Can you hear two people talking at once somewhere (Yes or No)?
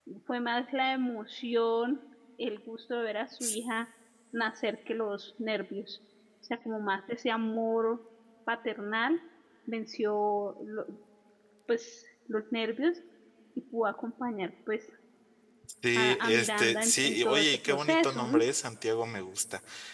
Yes